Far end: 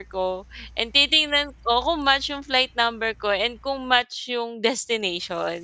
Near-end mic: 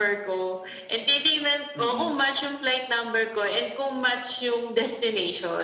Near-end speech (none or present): present